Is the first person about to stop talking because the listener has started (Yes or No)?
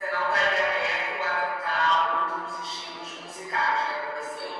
No